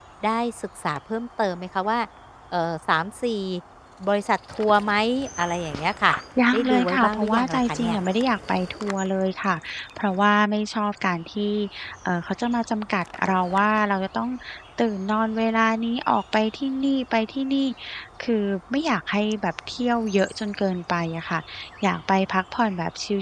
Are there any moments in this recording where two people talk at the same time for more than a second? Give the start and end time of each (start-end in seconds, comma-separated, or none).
6.5-8.0